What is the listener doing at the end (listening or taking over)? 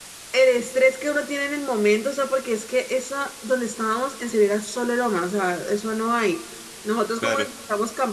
listening